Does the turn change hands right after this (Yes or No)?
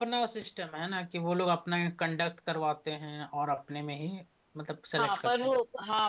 Yes